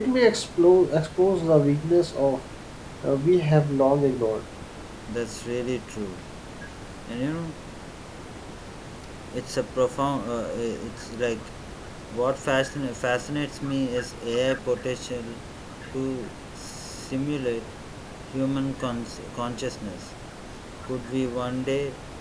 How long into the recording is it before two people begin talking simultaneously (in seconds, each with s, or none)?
none